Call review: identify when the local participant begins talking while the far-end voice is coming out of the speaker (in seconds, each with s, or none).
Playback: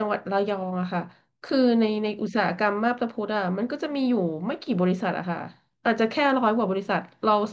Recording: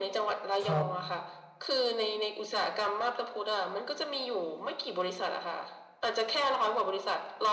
0.6 s